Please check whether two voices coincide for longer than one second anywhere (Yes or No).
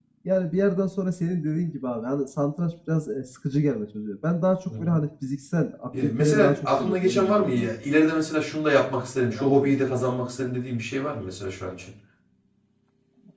Yes